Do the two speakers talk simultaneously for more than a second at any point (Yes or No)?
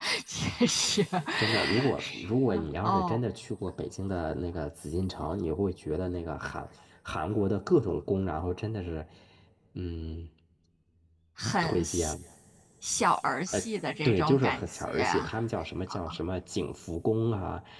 Yes